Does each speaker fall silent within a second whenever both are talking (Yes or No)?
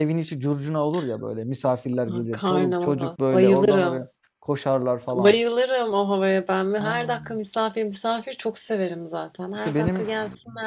No